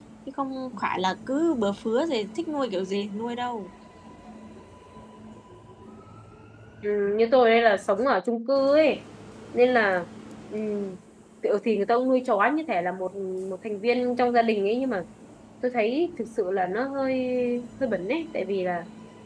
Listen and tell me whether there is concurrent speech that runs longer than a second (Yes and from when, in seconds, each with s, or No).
No